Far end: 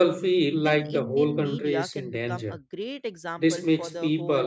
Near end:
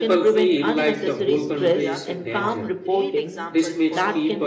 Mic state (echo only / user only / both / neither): both